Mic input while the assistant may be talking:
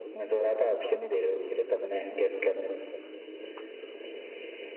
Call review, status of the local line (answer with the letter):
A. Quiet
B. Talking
A